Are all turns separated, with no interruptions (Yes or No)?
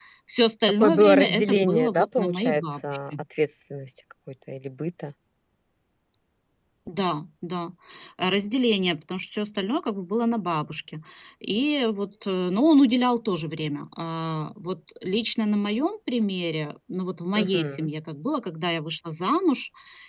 No